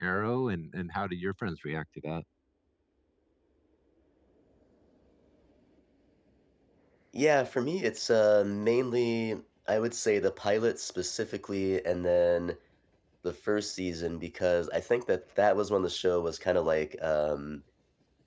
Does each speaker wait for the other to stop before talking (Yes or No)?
Yes